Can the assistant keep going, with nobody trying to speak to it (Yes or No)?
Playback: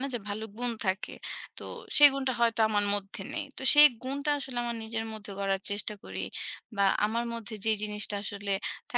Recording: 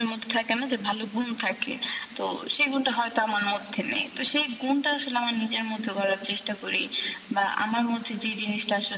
Yes